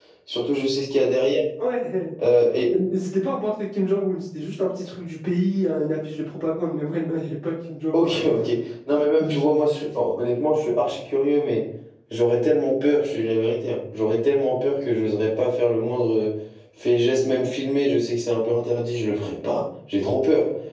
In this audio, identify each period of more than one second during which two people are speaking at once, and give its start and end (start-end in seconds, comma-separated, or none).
none